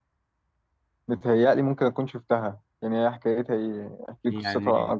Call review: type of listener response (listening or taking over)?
taking over